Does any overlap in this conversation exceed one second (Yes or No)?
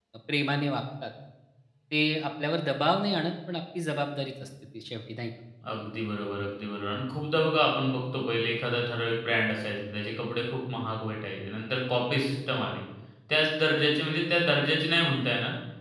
No